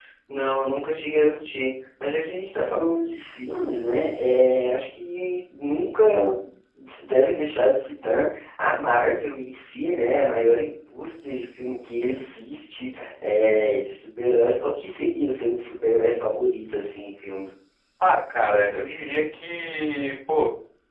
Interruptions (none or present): none